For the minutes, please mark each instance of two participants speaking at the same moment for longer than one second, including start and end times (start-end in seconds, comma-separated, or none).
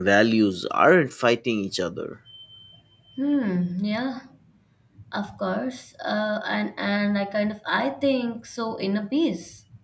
none